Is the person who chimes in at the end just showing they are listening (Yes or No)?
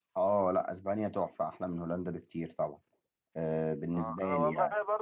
No